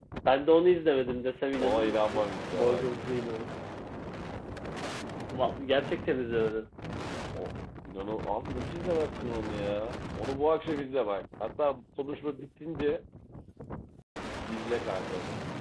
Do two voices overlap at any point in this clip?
Yes, from 1.6 s

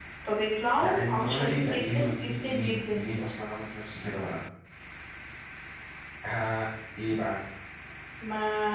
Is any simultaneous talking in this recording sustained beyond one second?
Yes, from 0.8 s

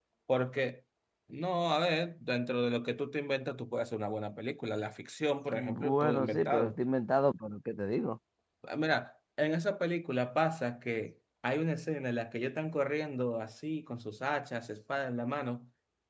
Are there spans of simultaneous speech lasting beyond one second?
Yes, from 5.5 s

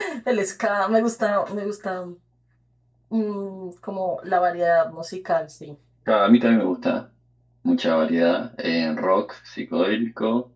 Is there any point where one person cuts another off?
No

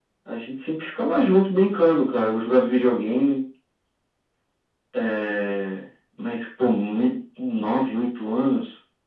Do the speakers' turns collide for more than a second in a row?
No

